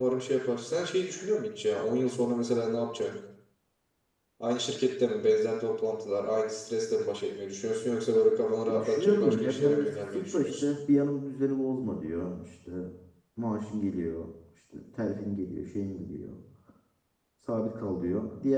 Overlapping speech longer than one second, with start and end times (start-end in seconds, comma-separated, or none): 8.7-10.6